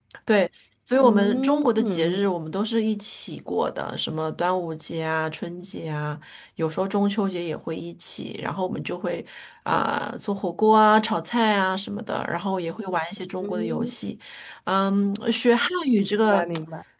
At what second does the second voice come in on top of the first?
1 s

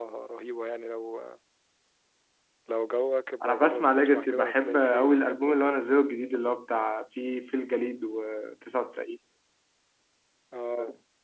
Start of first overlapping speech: 3 s

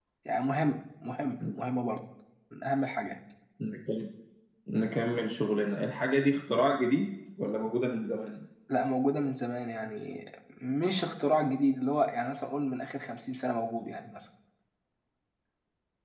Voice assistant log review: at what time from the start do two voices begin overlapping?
none

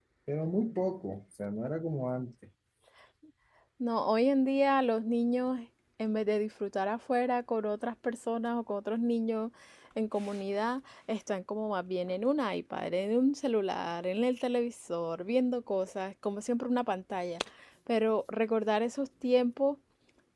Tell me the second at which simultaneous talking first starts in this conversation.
none

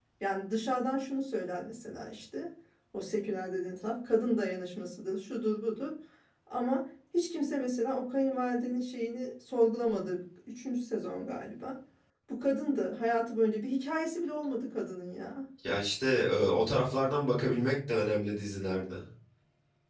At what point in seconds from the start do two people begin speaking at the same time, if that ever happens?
none

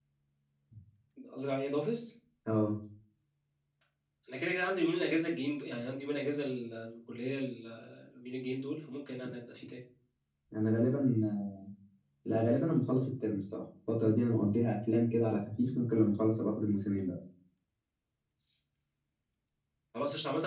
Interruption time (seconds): none

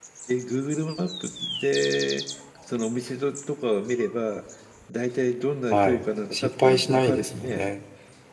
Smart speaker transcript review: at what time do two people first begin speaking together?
6 s

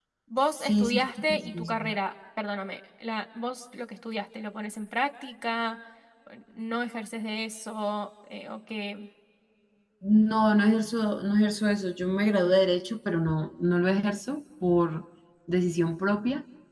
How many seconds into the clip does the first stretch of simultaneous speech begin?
1 s

